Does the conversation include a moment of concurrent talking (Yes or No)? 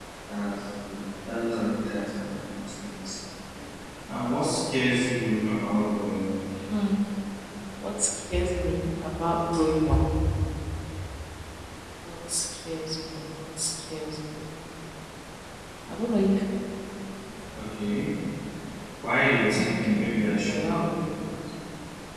Yes